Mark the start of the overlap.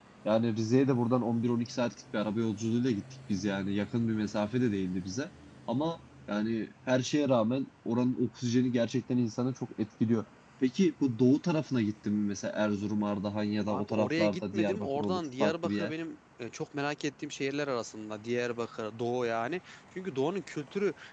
13.7 s

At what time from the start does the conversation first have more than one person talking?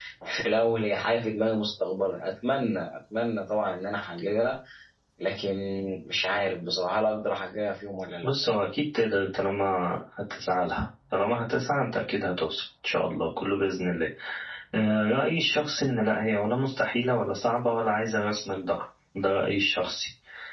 none

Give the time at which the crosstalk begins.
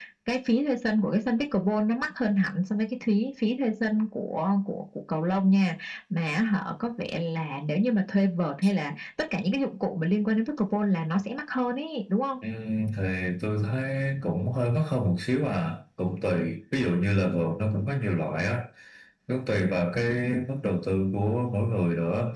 none

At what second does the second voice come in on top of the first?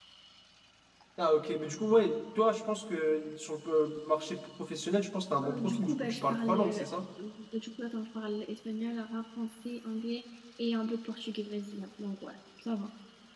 5.4 s

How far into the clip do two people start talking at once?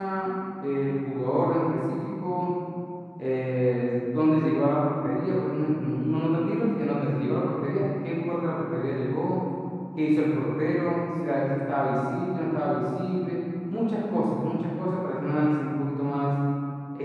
none

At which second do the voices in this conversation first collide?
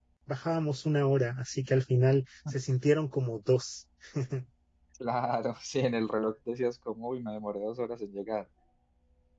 none

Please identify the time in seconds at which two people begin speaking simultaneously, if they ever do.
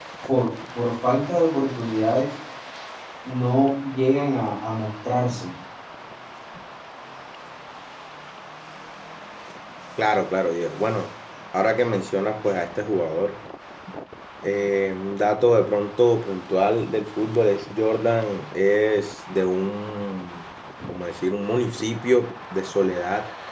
none

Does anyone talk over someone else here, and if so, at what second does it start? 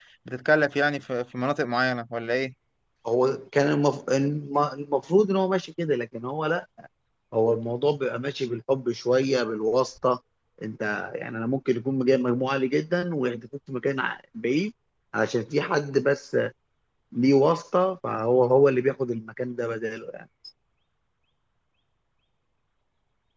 none

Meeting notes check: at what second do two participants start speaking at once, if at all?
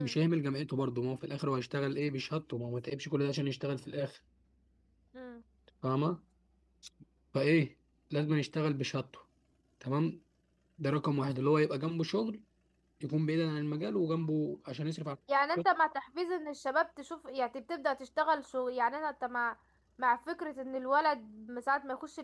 none

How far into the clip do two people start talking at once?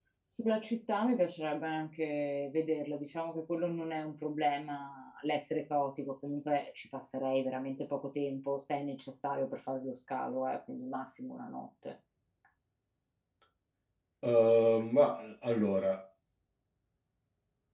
none

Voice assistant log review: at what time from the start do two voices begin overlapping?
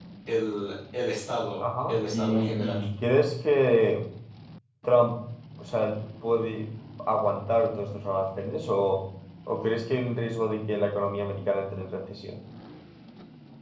1.6 s

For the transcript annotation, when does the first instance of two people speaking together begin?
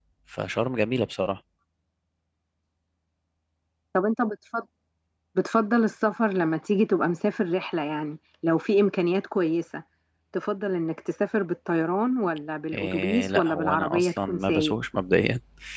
12.7 s

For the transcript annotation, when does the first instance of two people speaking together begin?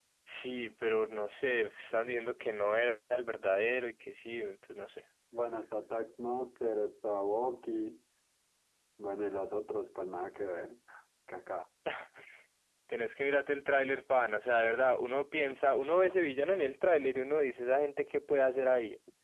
none

